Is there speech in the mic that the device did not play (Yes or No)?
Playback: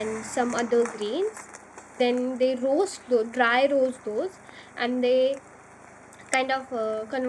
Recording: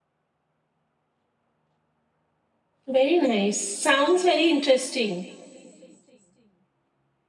Yes